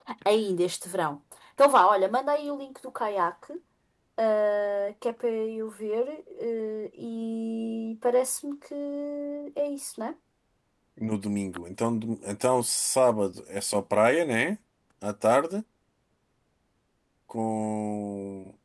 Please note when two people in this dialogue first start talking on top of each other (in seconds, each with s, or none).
none